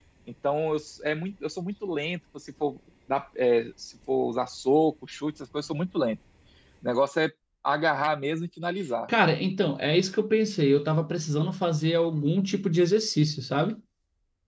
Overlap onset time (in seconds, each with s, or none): none